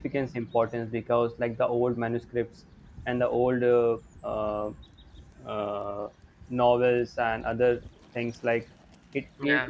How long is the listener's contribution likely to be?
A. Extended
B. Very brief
B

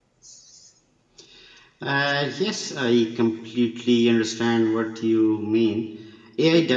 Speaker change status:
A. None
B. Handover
A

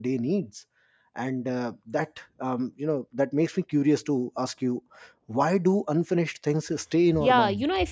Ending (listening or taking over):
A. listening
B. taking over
B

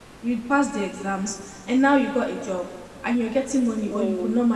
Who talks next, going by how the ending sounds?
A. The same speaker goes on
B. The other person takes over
A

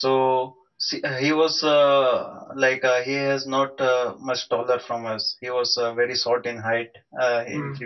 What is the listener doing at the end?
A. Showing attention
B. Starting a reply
A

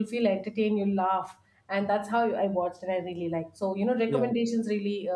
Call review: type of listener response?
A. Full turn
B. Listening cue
B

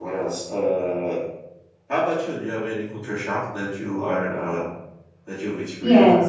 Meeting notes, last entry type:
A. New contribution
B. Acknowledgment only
A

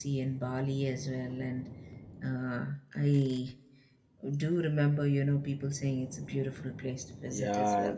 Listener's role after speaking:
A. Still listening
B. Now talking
B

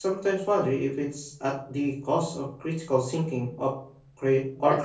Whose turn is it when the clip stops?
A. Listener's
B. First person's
A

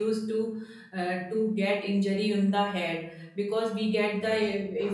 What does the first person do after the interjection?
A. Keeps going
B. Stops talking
A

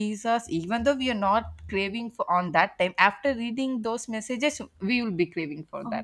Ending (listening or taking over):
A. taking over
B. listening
A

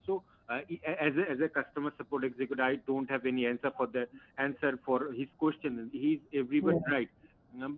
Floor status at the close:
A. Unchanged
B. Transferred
A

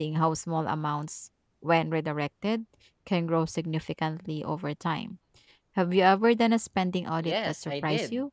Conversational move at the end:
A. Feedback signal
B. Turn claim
B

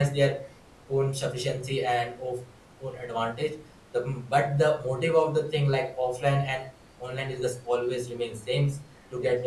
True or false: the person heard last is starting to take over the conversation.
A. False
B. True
A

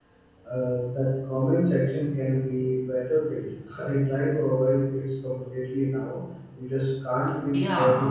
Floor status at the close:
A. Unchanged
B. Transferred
B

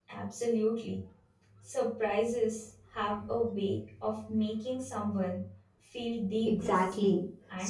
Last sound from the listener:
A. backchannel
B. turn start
B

